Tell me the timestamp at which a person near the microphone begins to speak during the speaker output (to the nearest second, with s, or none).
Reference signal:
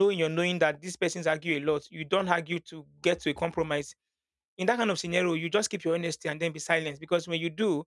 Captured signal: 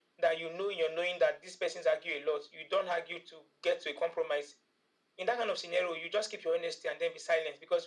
none